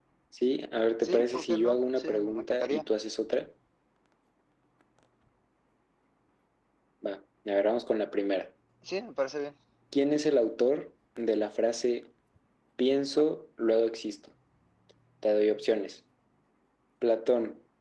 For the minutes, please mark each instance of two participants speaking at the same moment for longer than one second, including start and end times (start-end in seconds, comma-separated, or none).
1.0-2.9